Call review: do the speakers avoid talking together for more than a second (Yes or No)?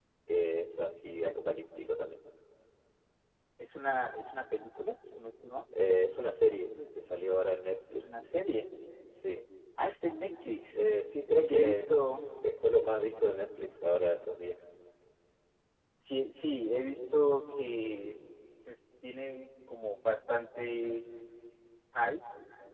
Yes